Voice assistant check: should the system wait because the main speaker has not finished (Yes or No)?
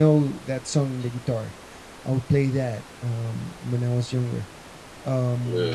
Yes